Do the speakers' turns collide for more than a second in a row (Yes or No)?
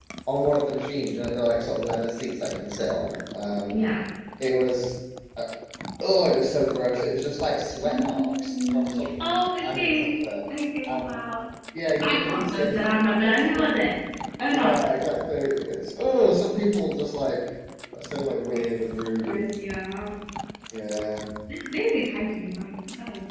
Yes